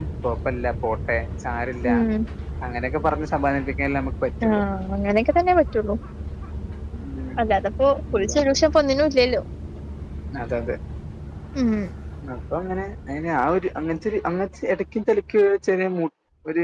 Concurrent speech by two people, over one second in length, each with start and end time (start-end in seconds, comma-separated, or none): none